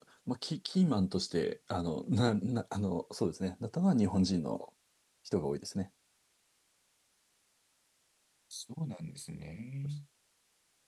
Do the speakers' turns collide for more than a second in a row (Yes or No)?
No